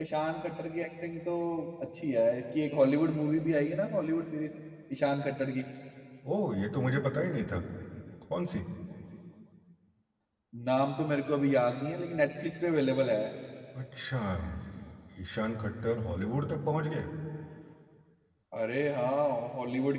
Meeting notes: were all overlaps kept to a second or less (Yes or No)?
Yes